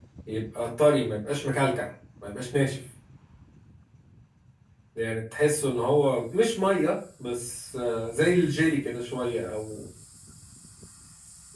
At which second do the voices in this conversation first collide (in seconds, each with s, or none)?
none